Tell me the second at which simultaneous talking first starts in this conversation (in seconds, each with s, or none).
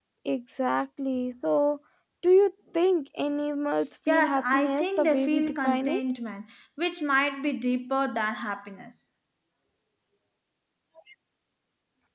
4.1 s